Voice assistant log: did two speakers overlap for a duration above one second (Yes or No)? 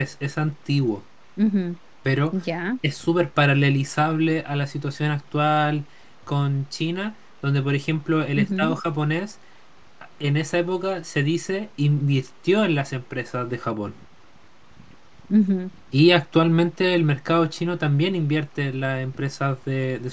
No